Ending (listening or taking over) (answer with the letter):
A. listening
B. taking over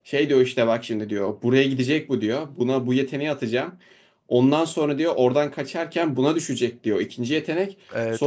A